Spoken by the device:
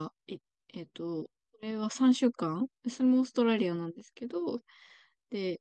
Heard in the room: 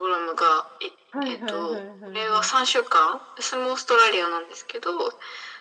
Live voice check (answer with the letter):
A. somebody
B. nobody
A